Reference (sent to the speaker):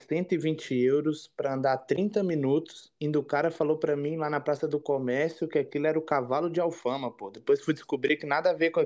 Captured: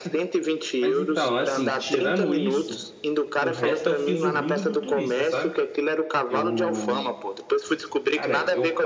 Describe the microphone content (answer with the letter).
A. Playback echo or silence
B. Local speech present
B